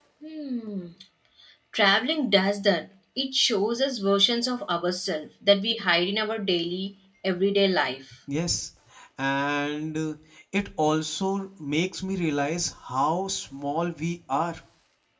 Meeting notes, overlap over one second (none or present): none